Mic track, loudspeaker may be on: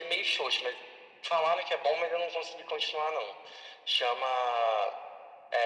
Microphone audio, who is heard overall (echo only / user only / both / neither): echo only